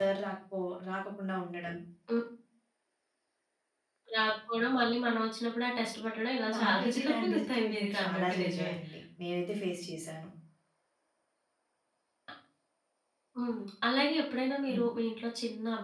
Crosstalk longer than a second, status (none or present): present